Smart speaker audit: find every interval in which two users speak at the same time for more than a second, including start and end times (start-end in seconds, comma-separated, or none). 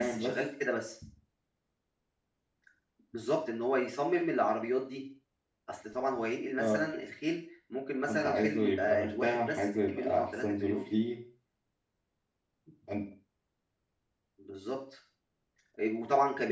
8.1-10.8